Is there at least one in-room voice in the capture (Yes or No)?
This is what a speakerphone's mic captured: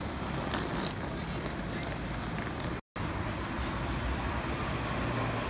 No